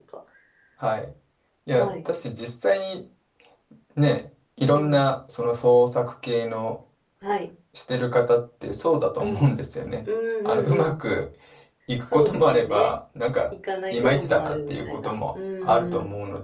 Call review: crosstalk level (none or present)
present